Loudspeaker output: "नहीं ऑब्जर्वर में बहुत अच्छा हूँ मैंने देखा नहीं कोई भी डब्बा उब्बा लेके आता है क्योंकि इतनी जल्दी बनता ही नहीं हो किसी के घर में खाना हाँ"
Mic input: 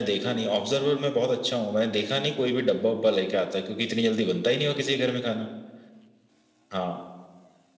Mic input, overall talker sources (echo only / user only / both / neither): echo only